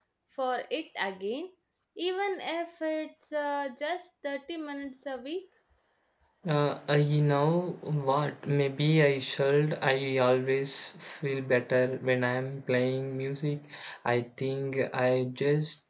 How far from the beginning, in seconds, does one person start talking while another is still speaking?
none

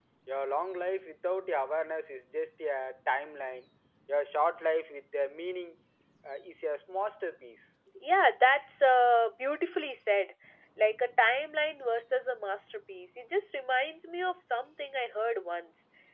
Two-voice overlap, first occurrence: none

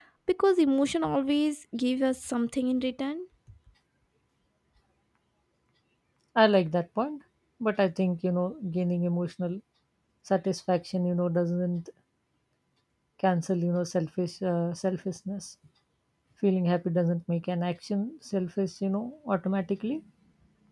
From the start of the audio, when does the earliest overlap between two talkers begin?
none

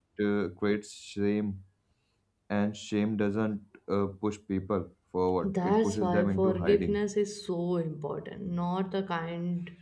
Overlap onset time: 5.4 s

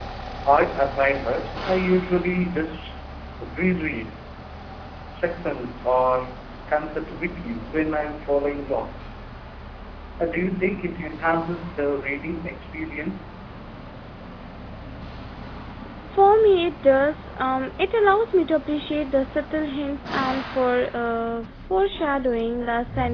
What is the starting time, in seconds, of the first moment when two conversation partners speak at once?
none

